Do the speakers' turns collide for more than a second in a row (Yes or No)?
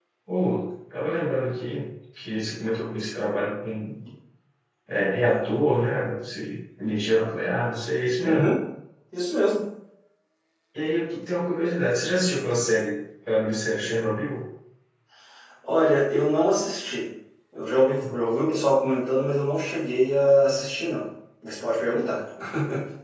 No